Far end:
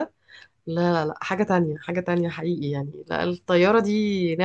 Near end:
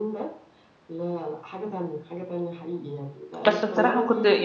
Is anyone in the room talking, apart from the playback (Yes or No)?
Yes